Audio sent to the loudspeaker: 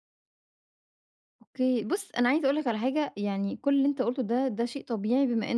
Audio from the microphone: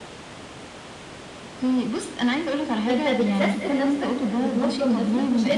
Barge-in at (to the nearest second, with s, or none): 3 s